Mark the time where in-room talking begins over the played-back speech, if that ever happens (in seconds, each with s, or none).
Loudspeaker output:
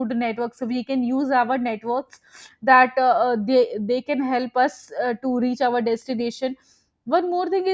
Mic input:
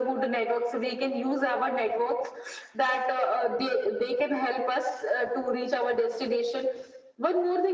none